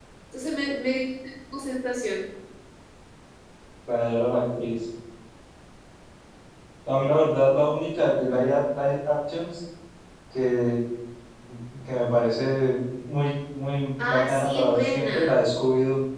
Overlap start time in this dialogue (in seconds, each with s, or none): 14.0 s